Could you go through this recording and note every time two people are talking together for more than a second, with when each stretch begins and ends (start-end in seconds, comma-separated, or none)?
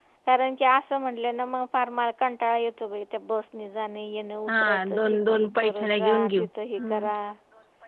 4.5-6.5